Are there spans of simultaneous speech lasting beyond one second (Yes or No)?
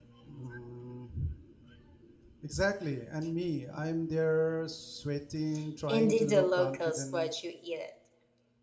Yes